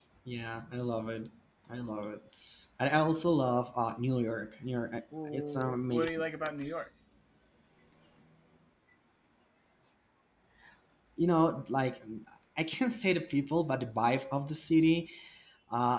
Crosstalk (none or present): present